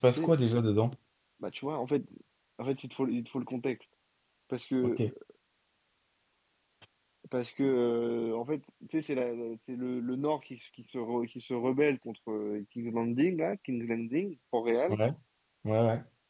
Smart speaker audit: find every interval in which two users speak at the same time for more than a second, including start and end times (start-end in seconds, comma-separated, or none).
none